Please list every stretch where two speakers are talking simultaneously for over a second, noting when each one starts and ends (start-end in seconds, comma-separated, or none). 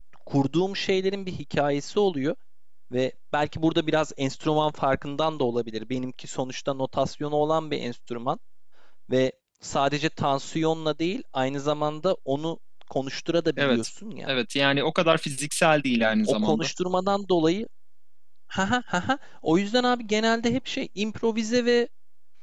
none